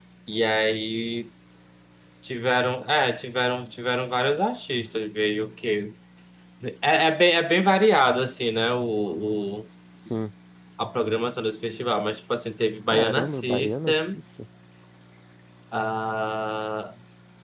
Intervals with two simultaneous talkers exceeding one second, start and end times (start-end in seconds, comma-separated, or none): 12.9-14.2